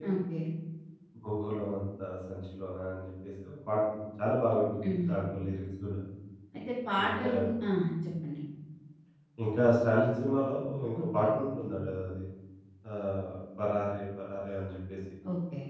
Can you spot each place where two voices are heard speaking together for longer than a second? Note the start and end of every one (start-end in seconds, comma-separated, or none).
none